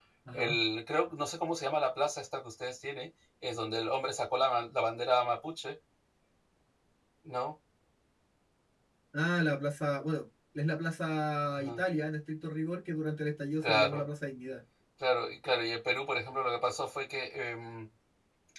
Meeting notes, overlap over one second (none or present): none